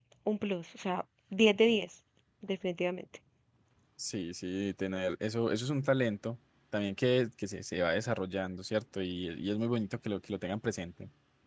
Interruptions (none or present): none